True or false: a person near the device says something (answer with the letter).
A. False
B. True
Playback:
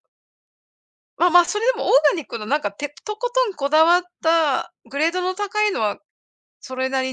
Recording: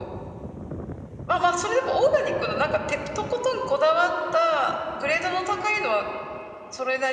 A